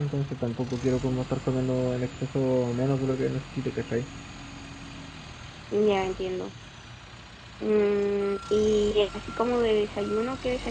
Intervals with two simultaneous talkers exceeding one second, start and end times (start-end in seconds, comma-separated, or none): none